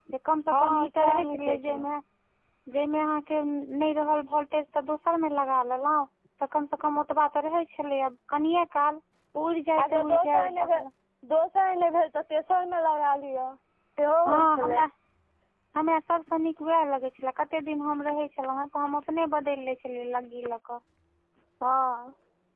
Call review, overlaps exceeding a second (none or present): present